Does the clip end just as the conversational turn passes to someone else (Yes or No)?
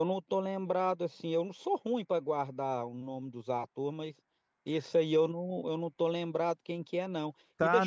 Yes